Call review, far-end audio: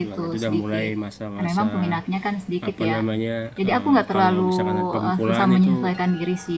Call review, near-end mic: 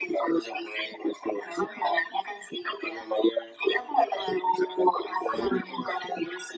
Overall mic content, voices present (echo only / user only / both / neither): echo only